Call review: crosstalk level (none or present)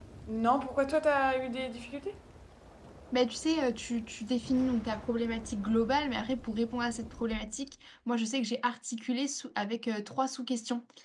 none